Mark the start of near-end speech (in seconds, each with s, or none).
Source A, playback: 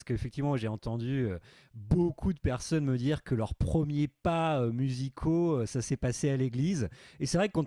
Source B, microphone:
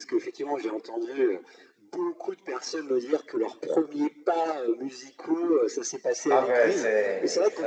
6.3 s